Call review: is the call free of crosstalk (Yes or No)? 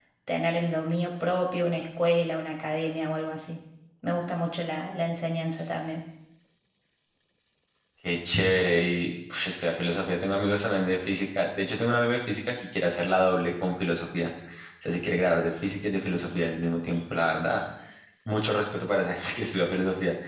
Yes